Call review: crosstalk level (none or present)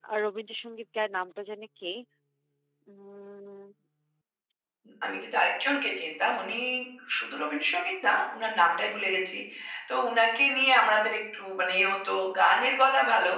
none